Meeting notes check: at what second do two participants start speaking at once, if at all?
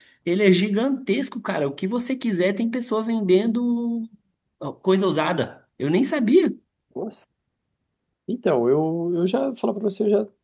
none

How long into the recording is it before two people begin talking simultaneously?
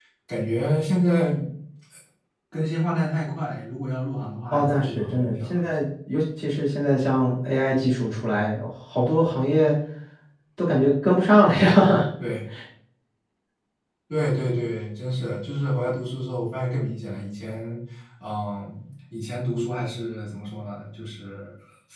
4.5 s

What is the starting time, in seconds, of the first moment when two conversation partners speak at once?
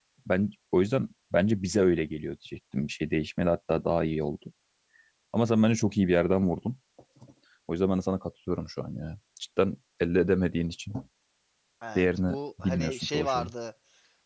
12.0 s

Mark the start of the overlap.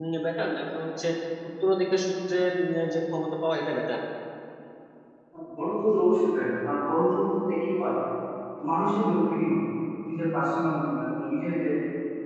none

